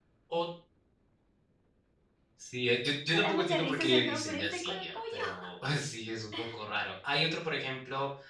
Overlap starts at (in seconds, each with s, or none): 3.1 s